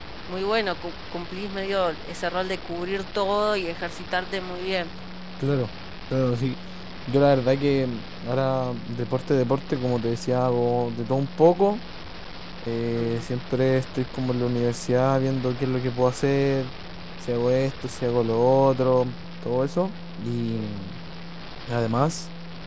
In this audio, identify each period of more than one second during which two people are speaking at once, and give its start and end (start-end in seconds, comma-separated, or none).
none